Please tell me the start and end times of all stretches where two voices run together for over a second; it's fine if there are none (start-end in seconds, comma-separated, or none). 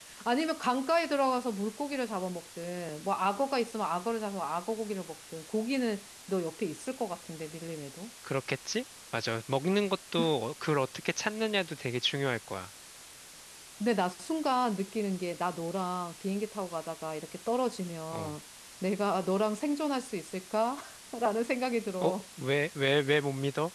none